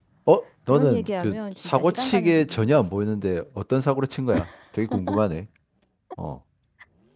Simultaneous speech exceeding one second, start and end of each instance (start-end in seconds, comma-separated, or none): 0.7-2.9